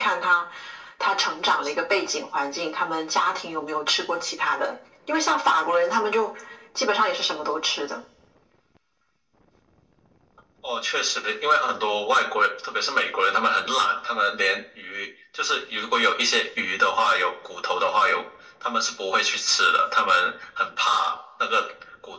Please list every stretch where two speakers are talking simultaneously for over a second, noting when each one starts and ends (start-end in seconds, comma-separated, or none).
none